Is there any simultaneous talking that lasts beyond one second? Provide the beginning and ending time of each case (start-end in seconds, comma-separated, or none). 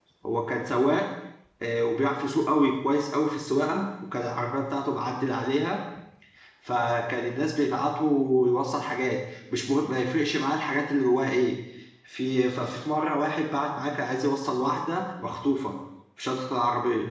none